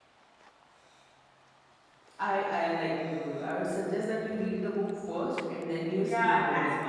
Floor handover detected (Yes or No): Yes